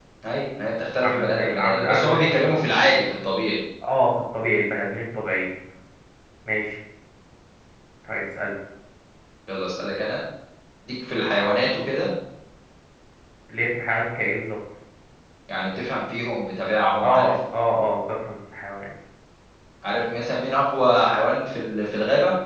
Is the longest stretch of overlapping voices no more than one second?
No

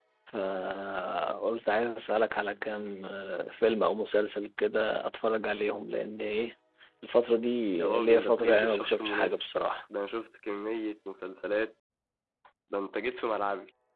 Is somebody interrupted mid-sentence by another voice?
Yes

